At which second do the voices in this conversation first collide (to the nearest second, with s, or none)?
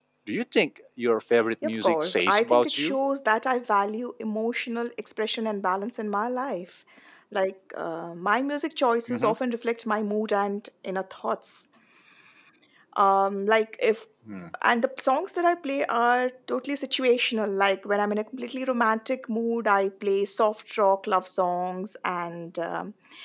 2 s